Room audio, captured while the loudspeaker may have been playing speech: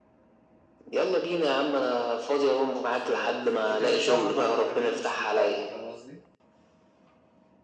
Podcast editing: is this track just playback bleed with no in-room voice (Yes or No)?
No